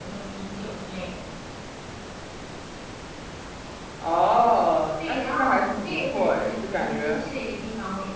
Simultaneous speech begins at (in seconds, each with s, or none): 5.0 s